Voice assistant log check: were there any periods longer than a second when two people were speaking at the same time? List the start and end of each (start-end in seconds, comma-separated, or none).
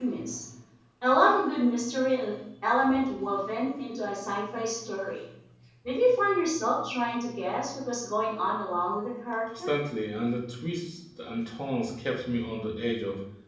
none